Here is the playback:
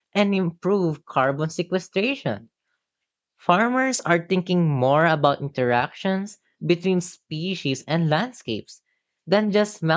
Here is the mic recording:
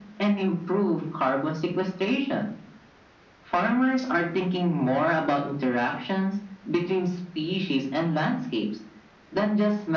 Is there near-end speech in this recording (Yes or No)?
No